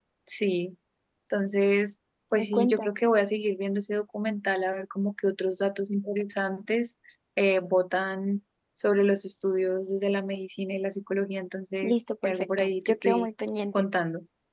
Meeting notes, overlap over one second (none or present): present